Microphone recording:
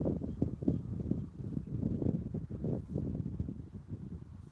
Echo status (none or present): none